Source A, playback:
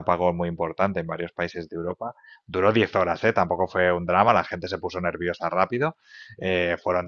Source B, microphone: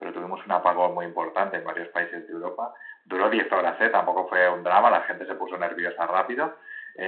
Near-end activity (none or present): none